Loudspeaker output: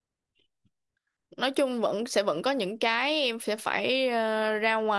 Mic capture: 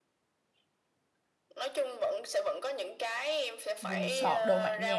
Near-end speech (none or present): present